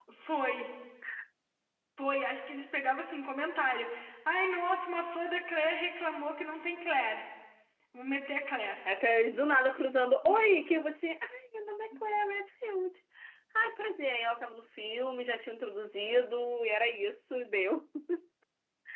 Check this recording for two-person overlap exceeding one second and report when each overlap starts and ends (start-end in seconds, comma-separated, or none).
none